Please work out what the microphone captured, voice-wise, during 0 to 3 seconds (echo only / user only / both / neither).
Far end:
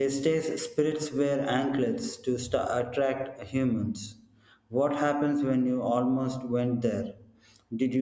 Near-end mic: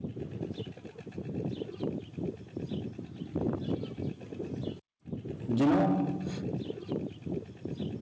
neither